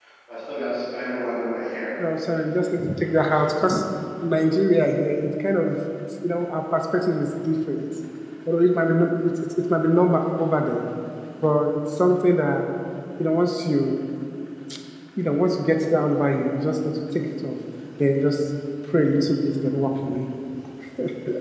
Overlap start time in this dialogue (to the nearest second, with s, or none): none